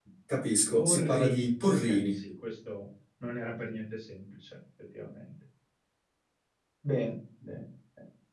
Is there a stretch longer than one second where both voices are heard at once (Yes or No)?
Yes